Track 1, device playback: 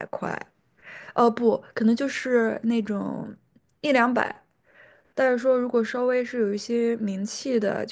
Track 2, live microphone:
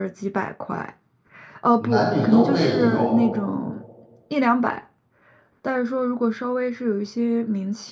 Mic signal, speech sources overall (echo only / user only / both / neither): both